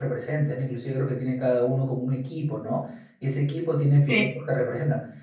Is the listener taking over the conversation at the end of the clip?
No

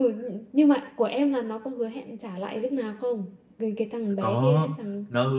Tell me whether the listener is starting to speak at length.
Yes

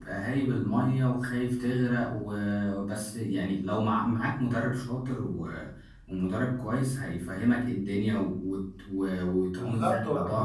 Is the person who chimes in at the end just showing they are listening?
No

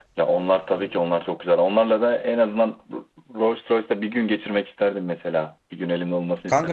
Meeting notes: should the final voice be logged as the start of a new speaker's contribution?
Yes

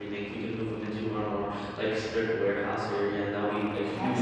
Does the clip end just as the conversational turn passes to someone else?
No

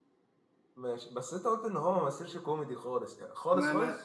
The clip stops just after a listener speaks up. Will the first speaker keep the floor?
No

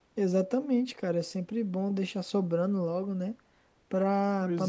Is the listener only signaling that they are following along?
Yes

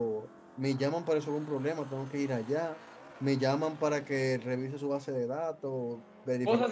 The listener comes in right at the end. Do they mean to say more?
Yes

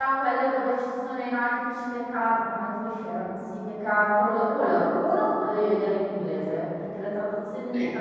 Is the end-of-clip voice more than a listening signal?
No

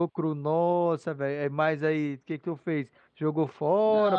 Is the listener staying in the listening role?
No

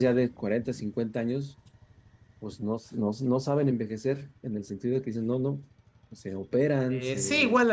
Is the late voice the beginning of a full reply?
Yes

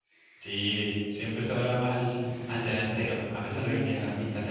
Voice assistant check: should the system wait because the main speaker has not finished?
Yes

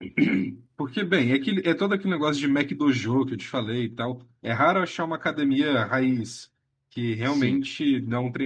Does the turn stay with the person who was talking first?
Yes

